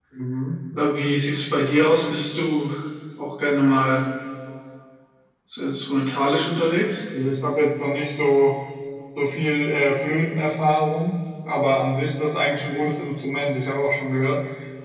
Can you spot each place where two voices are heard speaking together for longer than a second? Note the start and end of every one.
none

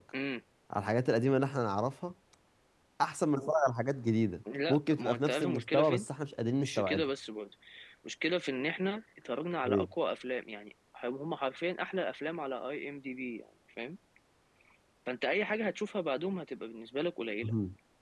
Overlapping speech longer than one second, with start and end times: 4.7-6.0

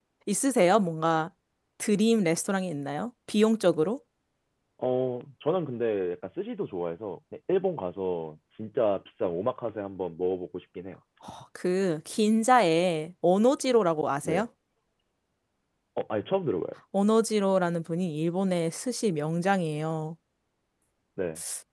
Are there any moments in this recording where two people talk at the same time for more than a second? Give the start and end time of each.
none

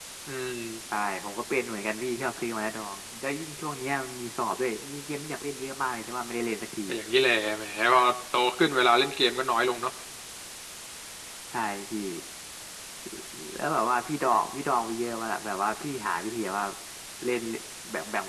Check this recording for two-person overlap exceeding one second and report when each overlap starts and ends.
none

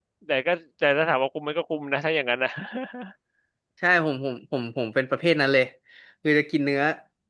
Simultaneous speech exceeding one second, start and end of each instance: none

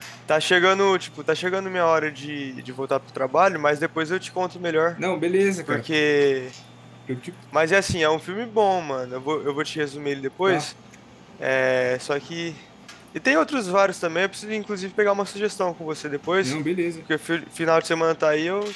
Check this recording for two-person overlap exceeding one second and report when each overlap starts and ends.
none

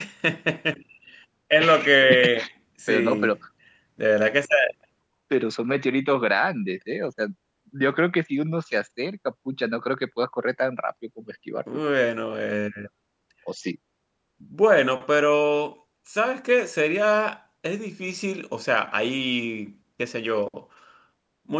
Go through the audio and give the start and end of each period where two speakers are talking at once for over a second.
none

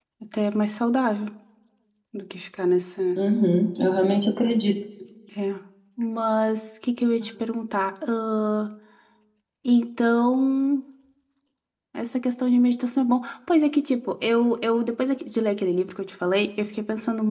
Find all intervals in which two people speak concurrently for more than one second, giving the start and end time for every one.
none

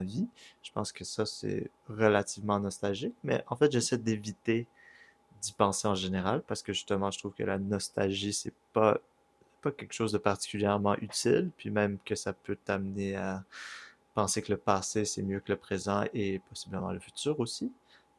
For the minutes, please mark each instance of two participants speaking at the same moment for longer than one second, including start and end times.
none

